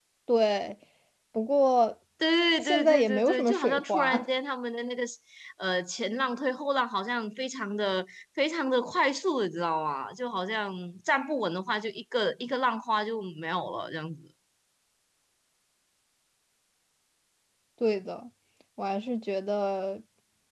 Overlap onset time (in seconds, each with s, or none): 2.6 s